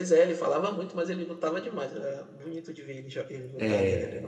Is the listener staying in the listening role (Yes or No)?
No